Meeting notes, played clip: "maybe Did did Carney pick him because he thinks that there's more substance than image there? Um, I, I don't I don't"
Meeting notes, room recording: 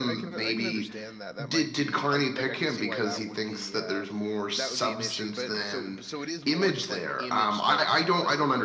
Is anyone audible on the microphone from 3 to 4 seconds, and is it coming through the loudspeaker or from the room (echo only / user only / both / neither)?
both